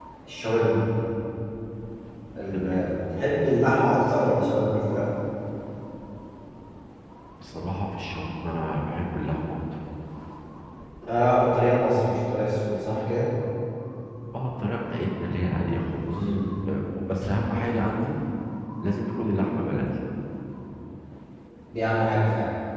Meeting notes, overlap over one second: none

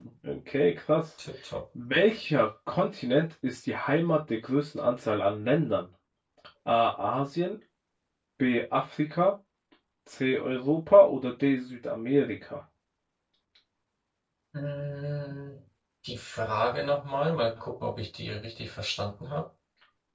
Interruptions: none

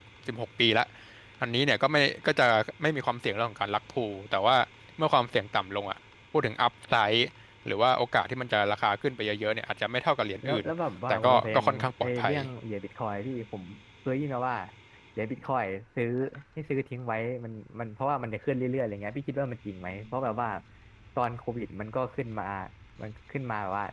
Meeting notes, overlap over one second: present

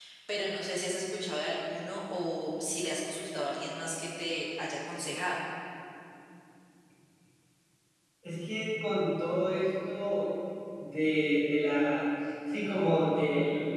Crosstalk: none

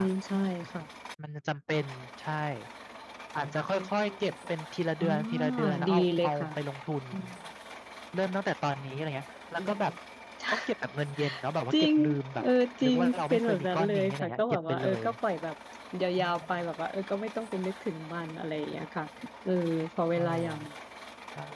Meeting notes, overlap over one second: present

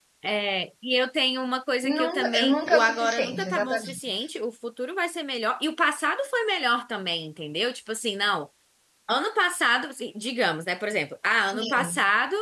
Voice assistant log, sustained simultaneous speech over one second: present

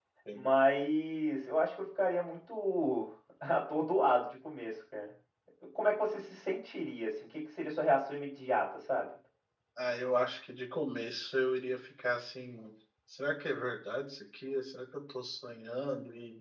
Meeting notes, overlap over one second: none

